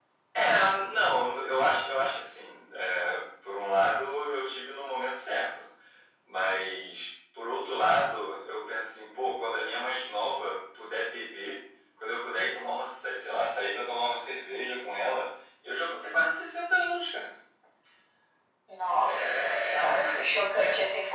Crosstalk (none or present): present